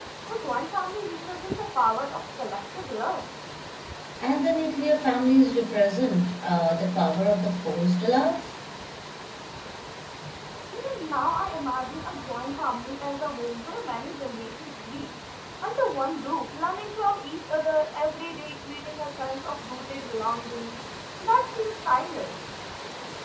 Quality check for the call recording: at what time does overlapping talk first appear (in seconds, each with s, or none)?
none